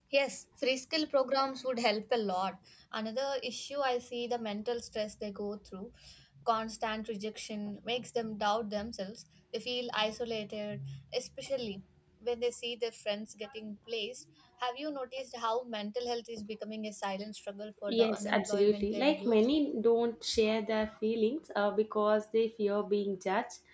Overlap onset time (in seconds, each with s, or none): 17.9 s